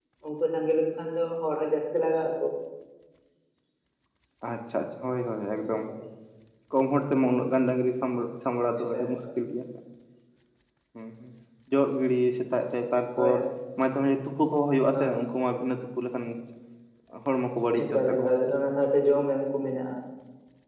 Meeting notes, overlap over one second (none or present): none